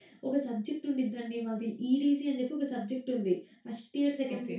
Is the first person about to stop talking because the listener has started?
No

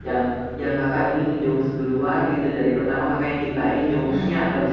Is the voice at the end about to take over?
No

